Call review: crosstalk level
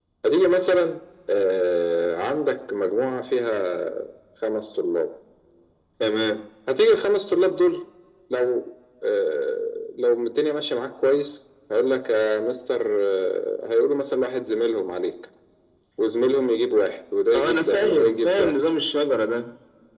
present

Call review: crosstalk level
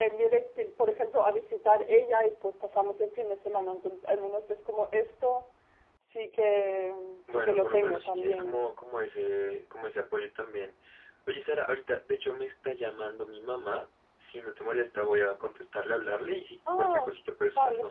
present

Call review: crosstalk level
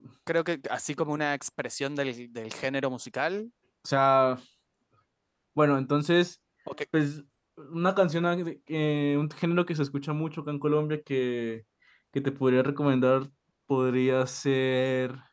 none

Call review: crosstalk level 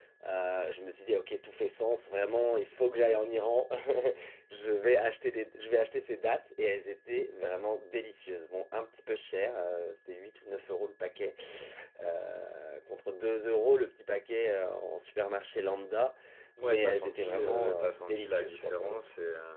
present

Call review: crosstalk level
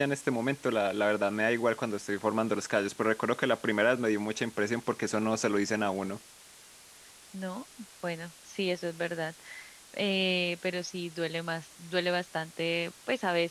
none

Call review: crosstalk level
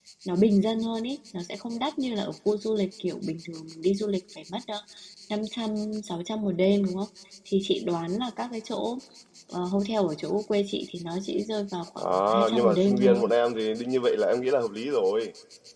present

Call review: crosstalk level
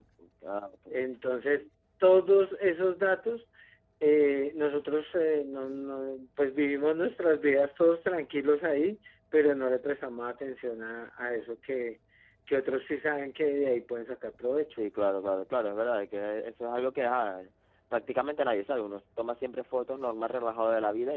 none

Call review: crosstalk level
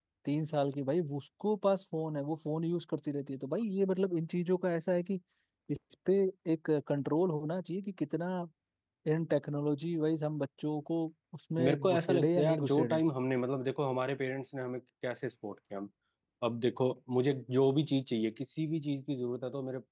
present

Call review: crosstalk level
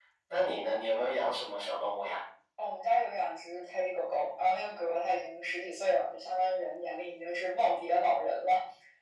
none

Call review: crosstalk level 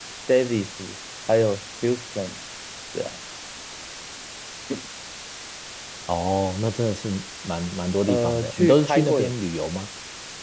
present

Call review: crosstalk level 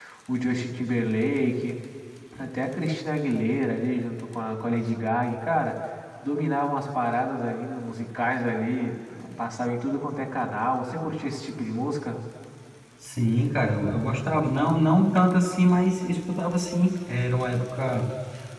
none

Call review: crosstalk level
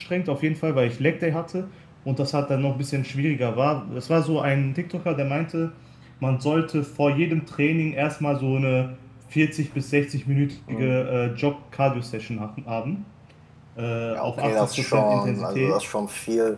present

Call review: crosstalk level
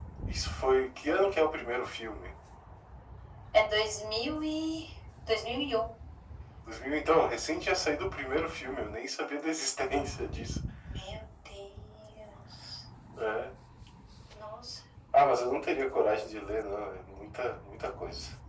none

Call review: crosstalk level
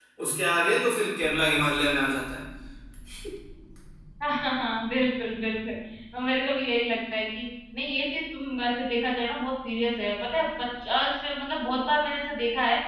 none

